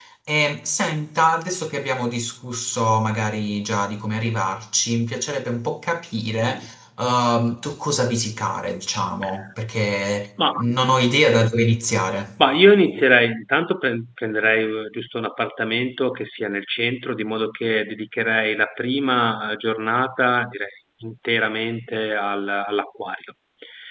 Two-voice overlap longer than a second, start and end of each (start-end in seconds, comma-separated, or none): none